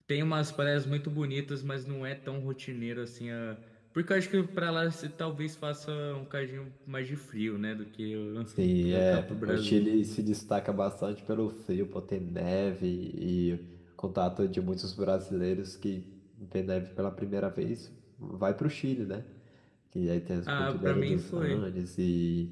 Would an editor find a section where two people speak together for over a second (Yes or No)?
Yes